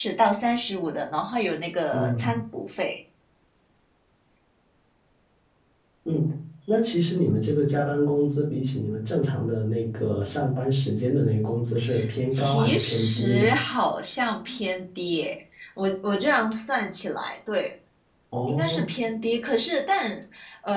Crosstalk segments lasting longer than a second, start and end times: 12.3-13.5

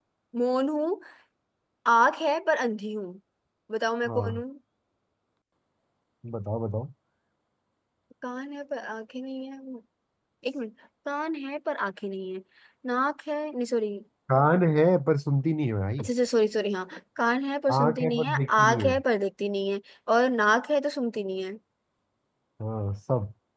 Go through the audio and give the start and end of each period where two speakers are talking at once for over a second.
17.8-19.0

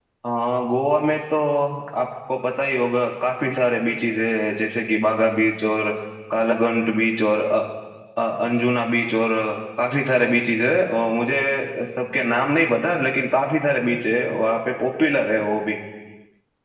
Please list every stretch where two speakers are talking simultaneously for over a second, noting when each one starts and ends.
none

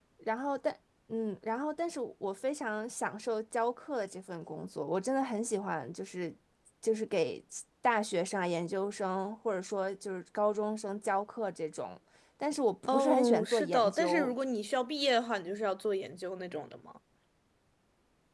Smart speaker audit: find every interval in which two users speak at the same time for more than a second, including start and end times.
12.9-14.3

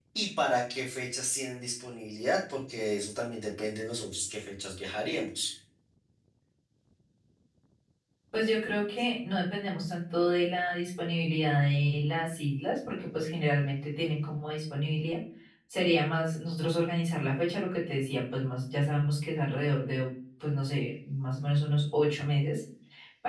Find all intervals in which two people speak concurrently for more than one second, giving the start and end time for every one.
none

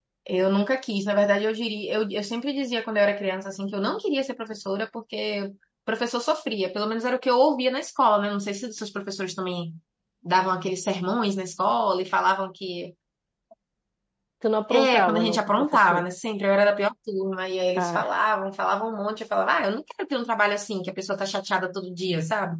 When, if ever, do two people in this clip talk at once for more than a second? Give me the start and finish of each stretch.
14.7-16.0

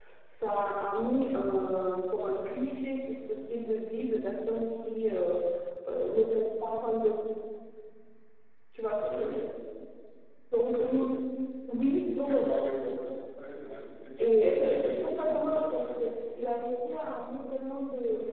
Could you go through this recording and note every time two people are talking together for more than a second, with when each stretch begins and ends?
14.2-16.1

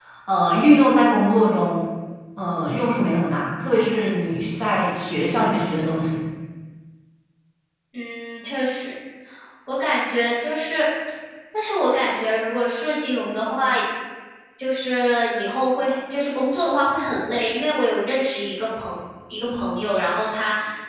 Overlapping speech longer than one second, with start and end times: none

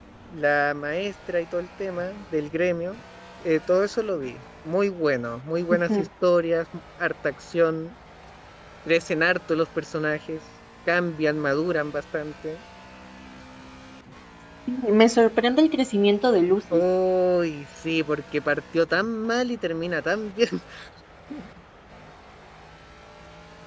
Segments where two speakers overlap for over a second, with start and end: none

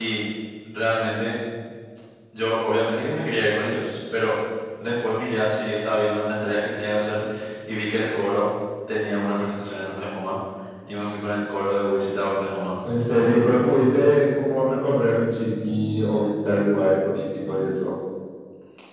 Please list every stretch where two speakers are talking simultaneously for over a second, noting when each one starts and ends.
none

